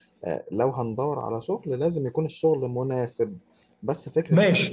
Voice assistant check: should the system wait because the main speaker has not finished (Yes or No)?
No